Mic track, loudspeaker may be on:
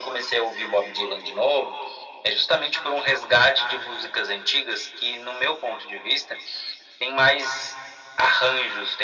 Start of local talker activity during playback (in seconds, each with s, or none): none